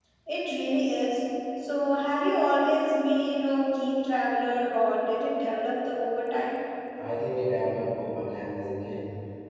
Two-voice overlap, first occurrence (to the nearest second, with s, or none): none